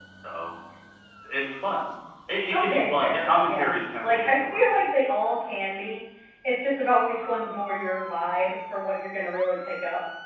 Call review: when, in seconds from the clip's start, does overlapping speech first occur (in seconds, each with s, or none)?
2.5 s